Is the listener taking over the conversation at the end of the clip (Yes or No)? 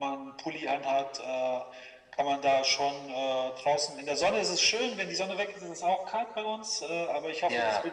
No